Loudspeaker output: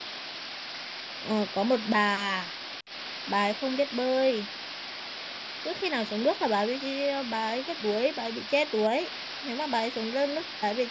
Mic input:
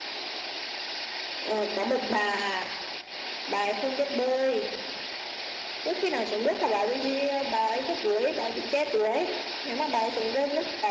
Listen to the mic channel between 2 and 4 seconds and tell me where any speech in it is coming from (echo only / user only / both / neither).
echo only